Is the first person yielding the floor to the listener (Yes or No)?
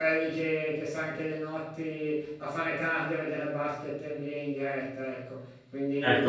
Yes